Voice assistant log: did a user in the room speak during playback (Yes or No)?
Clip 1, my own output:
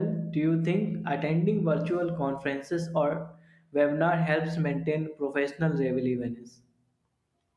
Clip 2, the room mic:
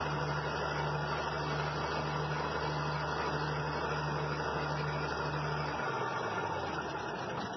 No